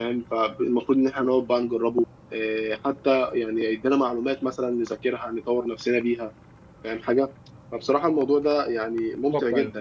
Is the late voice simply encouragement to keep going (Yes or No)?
Yes